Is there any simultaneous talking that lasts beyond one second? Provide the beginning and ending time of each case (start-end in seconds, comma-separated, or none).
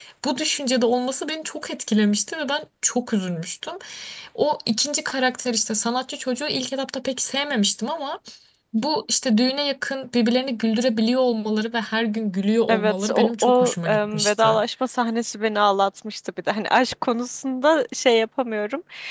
12.7-14.6